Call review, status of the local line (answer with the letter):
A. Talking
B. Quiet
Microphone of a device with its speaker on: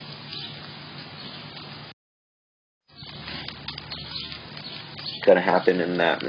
A